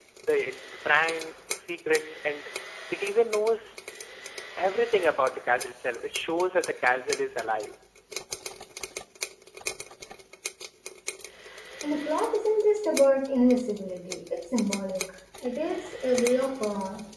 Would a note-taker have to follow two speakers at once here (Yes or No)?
No